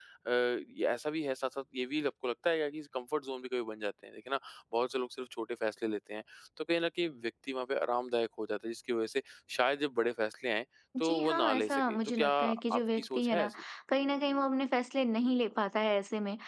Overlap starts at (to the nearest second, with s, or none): 11 s